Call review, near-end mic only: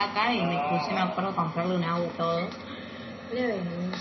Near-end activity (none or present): present